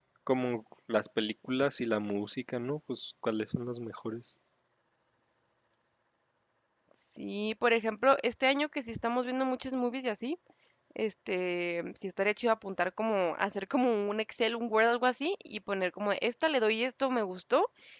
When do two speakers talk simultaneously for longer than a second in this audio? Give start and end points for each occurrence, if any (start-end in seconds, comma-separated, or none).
none